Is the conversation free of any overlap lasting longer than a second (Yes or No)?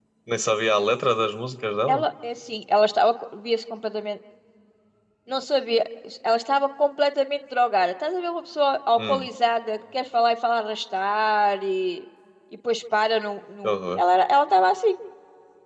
Yes